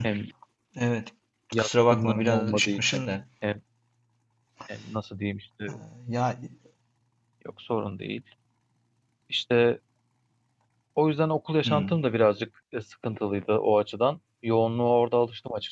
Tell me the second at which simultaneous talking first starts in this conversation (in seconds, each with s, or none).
1.6 s